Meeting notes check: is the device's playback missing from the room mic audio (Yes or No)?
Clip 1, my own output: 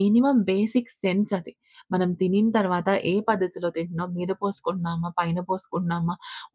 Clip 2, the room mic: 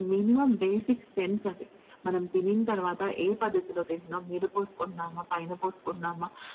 No